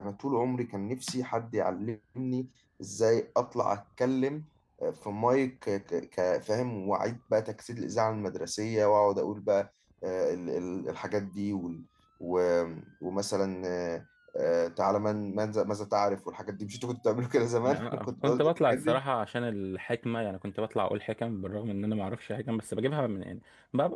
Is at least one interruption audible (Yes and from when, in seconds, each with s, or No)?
Yes, from 17.6 s